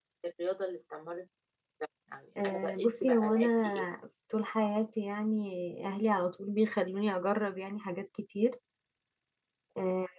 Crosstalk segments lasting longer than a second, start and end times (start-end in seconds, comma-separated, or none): 2.4-3.9